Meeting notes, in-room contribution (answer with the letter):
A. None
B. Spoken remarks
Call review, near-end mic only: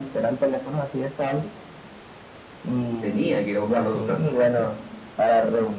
B